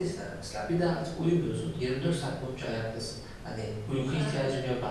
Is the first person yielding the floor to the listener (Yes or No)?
Yes